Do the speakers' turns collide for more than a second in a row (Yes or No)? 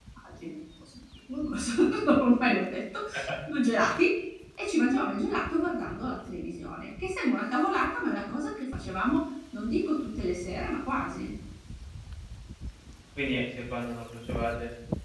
No